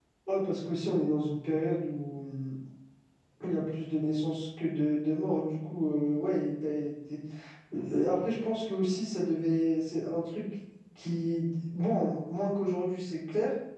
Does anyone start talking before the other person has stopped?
No

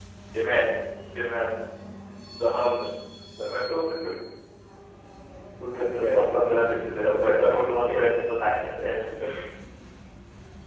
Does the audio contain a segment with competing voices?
Yes, from 6.0 s

